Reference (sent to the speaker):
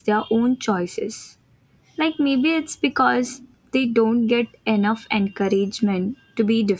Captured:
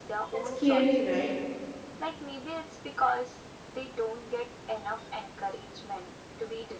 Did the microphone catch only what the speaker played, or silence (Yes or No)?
No